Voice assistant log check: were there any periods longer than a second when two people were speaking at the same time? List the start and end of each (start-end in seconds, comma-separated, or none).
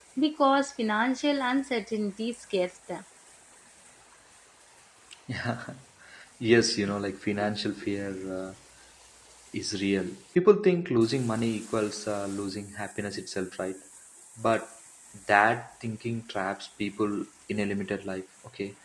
none